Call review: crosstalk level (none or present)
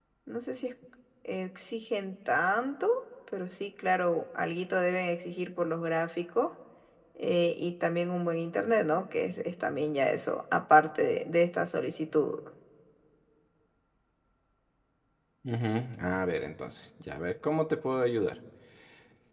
none